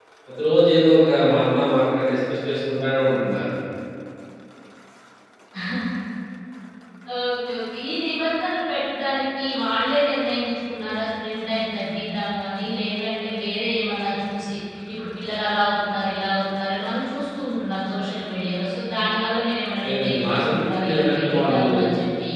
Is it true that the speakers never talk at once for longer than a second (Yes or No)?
No